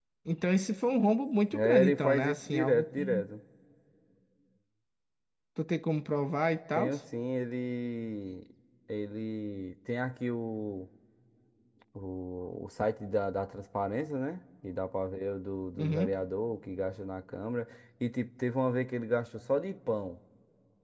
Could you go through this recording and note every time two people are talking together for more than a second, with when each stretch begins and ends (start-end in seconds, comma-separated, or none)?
1.5-3.2